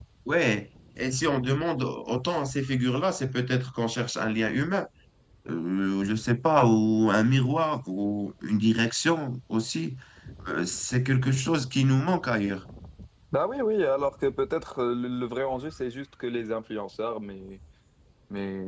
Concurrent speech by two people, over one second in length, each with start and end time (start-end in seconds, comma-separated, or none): none